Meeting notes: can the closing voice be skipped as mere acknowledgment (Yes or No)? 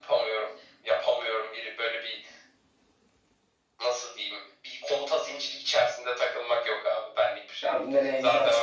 No